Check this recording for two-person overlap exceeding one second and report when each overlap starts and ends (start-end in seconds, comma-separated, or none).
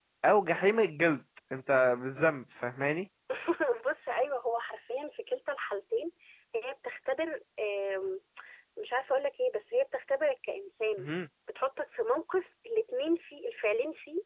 none